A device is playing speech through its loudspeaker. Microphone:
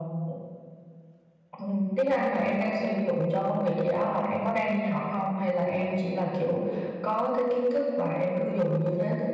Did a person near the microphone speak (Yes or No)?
No